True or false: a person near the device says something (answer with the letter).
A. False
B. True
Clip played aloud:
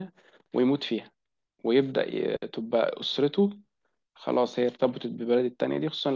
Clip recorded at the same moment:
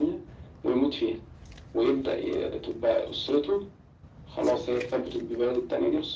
A